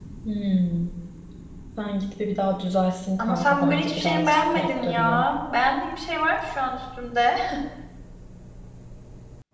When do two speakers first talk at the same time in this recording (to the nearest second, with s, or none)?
3 s